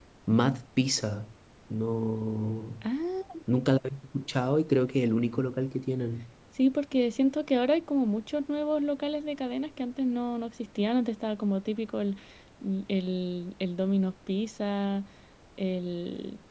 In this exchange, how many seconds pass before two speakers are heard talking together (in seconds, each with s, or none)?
none